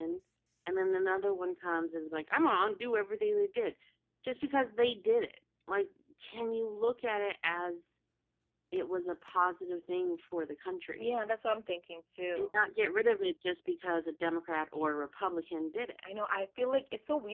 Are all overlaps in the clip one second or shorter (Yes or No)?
Yes